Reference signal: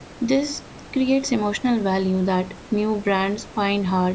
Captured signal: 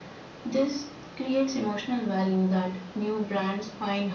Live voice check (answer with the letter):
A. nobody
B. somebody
A